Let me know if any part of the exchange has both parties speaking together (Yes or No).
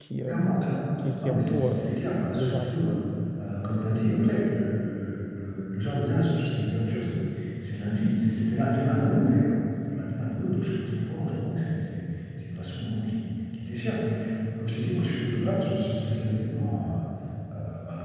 Yes